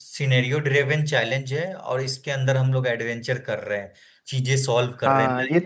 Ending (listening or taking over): taking over